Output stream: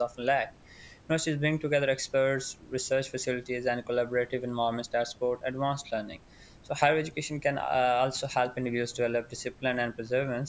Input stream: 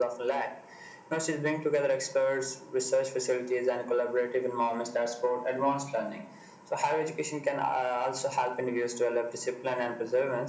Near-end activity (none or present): none